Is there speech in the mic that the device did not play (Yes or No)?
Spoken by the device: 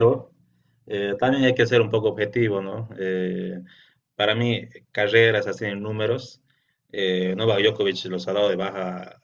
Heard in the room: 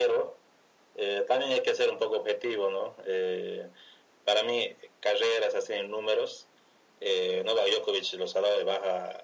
No